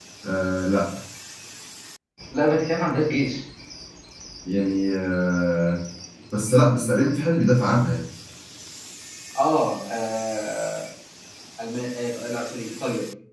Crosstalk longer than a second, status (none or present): none